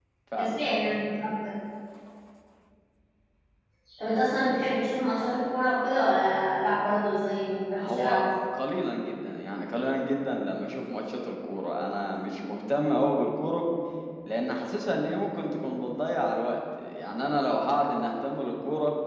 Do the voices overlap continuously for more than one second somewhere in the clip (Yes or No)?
No